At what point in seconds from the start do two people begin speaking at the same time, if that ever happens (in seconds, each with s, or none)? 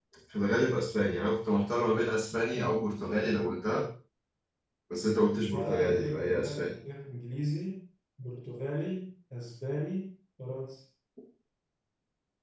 5.5 s